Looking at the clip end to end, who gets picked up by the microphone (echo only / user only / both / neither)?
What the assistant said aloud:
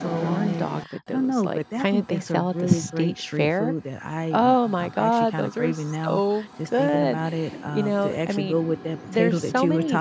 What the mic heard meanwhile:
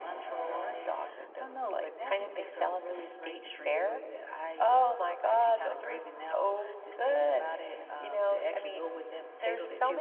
echo only